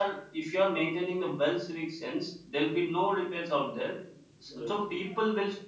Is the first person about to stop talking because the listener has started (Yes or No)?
No